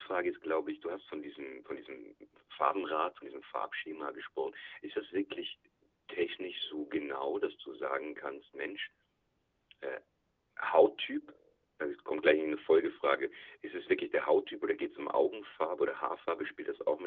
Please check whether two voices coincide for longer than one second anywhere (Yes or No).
No